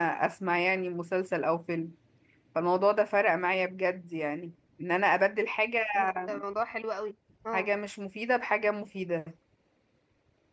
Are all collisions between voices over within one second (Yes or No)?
Yes